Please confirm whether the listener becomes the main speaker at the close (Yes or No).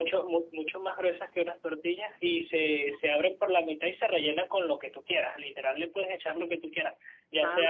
No